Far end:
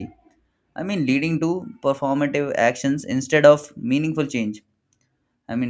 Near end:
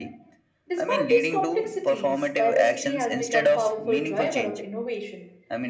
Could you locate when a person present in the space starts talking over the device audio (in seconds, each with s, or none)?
0.7 s